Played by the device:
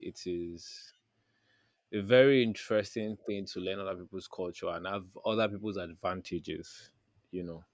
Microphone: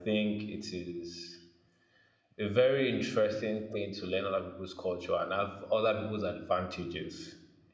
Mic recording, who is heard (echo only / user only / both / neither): echo only